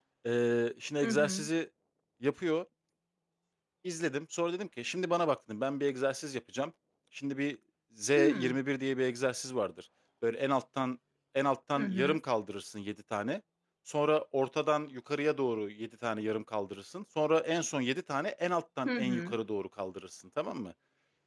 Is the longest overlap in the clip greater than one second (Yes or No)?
No